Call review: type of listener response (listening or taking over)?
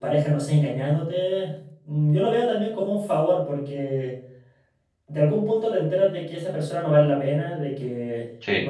listening